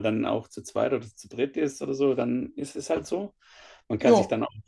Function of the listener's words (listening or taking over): listening